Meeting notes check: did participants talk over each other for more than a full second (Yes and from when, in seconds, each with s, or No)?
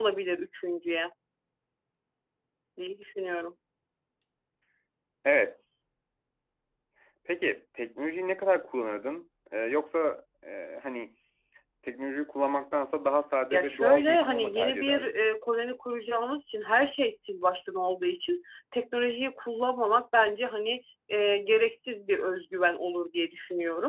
Yes, from 13.4 s